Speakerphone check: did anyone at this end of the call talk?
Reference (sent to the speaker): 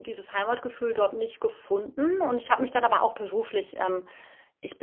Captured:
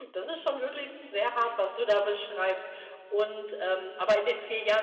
Yes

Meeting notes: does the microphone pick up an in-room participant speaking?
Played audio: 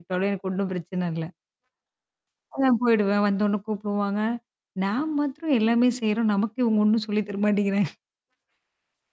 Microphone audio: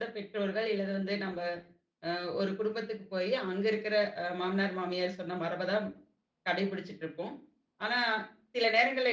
Yes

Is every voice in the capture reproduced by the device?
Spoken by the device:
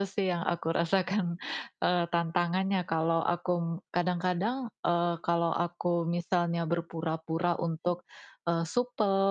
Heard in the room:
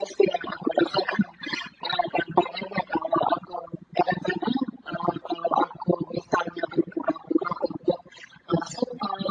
Yes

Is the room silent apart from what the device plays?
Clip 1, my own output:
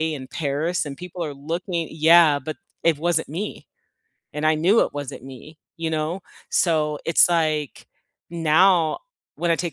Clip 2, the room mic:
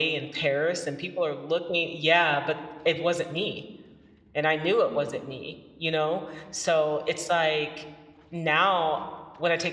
Yes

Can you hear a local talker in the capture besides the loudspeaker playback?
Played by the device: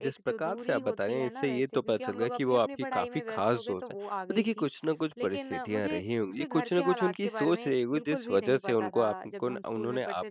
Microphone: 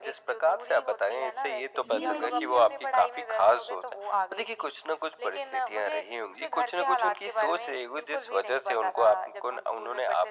Yes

